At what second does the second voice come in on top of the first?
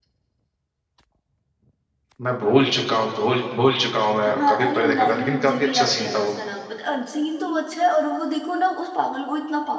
4 s

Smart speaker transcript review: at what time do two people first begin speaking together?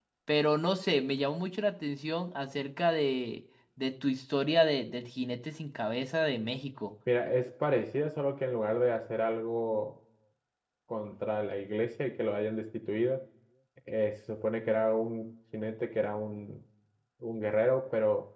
none

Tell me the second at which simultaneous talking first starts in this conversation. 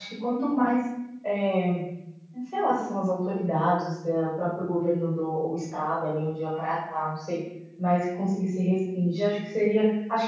none

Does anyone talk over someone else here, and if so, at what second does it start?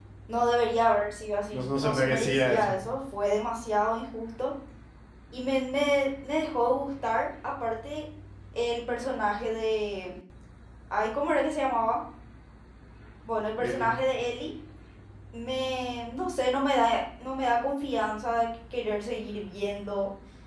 2 s

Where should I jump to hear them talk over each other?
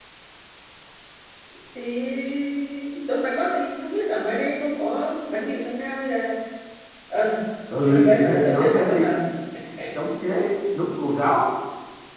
8 s

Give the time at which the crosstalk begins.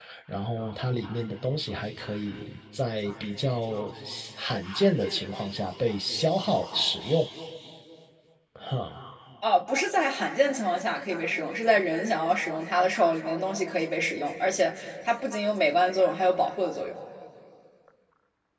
none

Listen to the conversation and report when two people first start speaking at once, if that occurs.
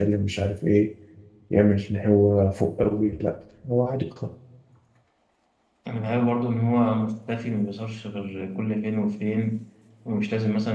none

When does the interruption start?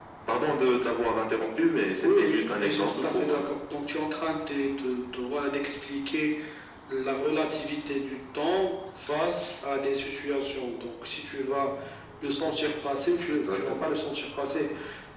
2 s

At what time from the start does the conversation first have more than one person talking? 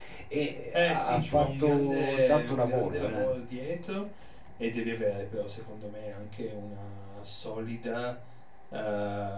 1 s

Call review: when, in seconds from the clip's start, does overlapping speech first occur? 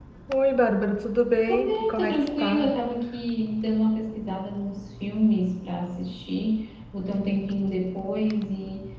1 s

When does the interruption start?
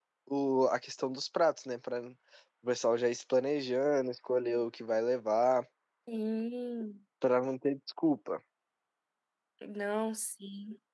none

